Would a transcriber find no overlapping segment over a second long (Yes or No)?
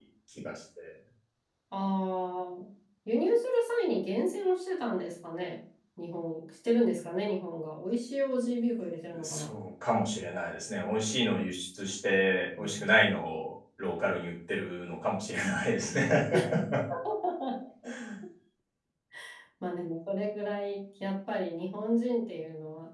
Yes